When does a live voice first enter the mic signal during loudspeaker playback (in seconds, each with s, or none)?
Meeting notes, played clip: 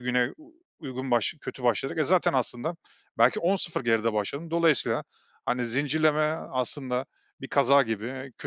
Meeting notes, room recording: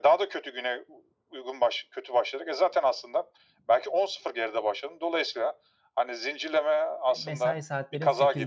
7.2 s